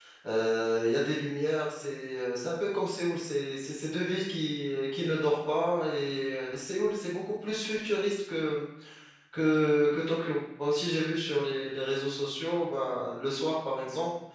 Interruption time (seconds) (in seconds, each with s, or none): none